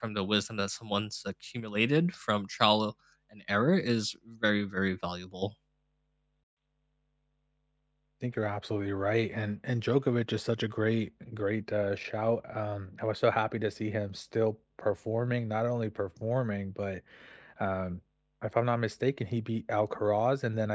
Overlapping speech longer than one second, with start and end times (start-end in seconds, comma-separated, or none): none